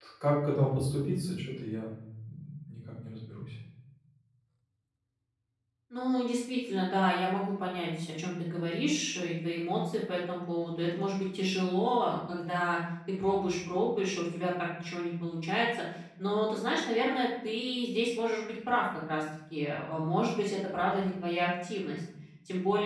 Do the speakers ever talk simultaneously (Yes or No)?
No